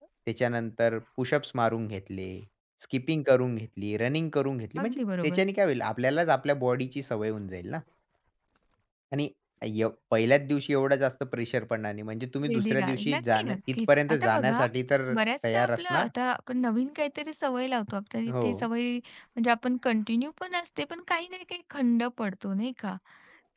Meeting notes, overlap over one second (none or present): present